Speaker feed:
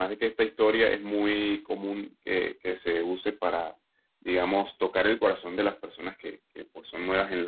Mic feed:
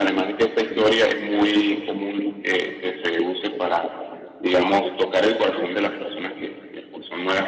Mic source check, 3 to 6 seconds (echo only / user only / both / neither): echo only